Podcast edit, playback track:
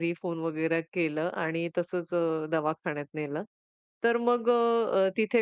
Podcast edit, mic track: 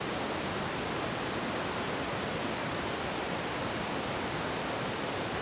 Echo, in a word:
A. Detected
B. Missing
B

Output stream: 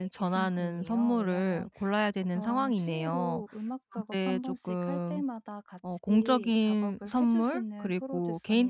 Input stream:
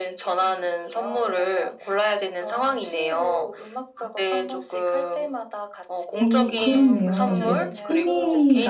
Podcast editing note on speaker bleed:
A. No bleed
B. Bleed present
B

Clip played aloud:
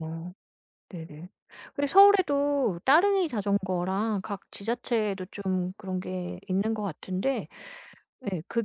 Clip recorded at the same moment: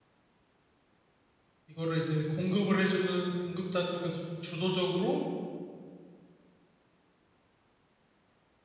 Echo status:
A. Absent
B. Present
A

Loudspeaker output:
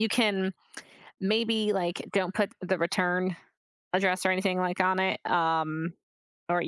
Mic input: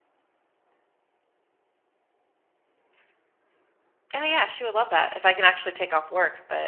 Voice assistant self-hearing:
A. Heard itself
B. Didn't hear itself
B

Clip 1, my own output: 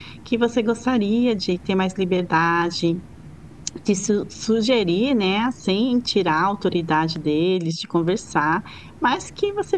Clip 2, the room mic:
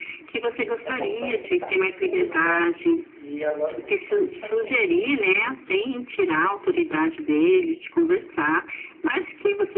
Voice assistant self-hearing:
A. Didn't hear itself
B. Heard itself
B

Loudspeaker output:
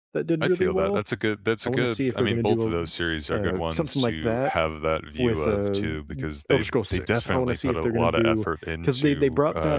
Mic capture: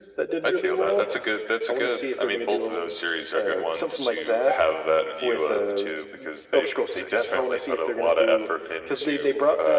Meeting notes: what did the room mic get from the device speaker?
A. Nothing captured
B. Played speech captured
B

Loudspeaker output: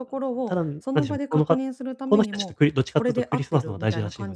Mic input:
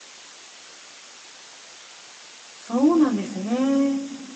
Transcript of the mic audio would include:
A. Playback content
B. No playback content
B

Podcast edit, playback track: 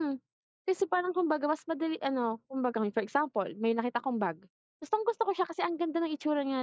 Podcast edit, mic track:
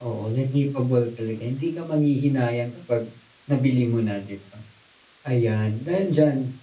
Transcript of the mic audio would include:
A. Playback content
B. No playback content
B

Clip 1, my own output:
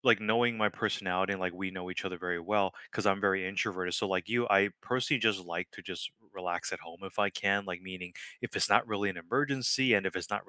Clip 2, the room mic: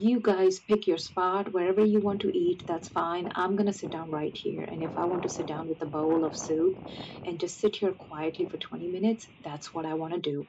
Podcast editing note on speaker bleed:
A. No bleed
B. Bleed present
A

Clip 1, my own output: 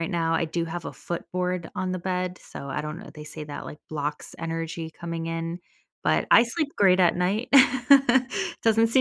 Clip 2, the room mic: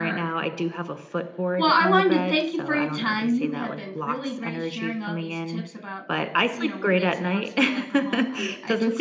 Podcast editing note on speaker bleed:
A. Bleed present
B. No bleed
A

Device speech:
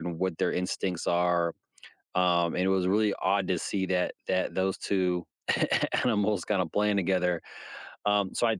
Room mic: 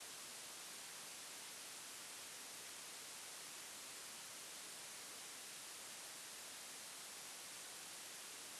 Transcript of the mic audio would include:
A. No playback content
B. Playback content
A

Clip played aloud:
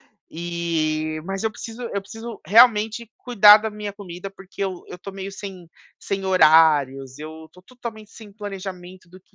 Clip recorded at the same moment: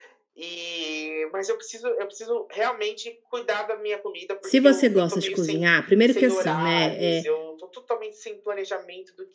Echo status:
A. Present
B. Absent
A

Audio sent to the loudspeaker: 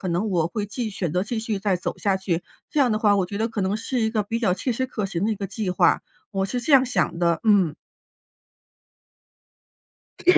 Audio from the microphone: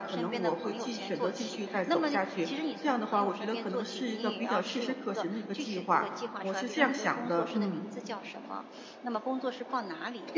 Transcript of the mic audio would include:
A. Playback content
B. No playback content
A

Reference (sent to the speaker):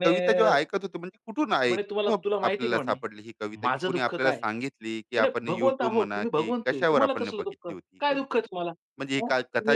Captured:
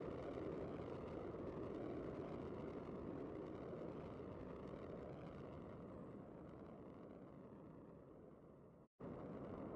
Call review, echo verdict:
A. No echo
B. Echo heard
A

